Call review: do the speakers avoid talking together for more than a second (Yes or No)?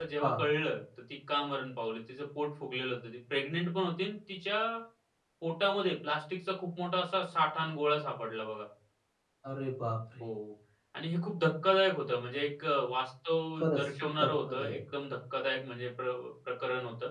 No